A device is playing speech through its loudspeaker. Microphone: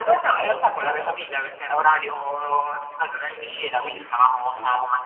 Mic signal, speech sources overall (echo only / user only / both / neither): both